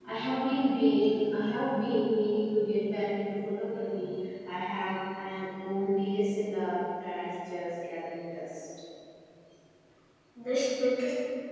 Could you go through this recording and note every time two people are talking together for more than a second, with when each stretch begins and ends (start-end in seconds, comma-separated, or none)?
none